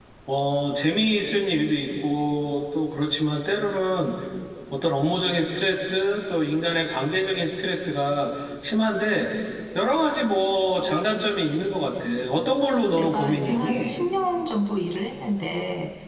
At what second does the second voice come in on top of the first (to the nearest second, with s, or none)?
13 s